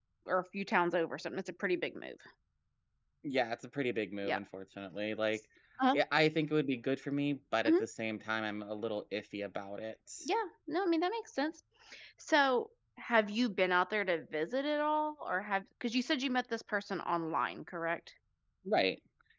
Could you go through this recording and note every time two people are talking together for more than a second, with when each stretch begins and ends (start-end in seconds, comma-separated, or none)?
none